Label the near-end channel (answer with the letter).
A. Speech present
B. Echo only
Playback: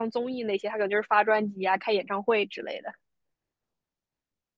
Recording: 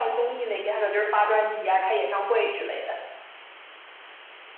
B